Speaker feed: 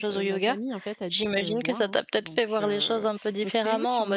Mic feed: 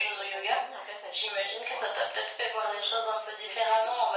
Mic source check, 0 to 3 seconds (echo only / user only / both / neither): echo only